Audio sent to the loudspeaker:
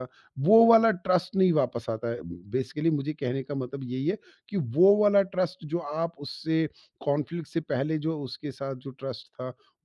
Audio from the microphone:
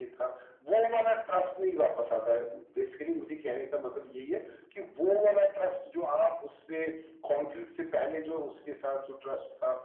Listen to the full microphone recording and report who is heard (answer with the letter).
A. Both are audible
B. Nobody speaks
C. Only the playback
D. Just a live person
C